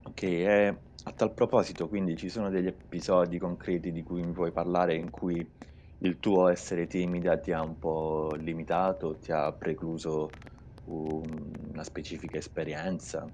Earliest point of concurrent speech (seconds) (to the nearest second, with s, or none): none